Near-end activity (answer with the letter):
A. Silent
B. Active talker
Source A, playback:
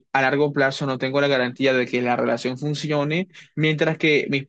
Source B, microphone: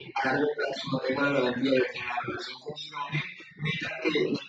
A